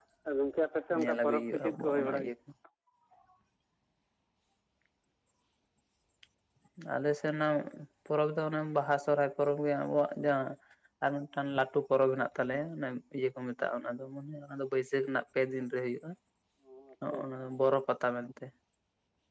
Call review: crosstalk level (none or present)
present